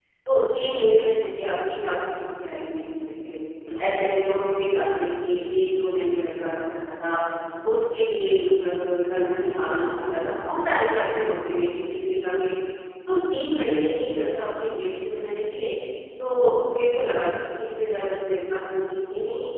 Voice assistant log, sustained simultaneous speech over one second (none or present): present